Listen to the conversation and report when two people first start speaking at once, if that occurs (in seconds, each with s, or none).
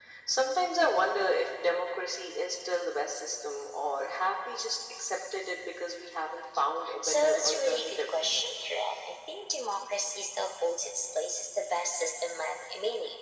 7.0 s